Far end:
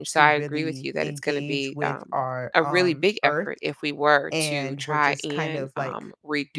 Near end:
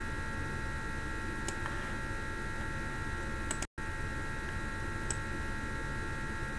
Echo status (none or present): none